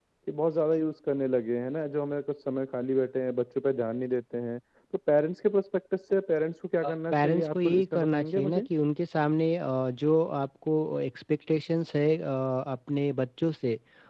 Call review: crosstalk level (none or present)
present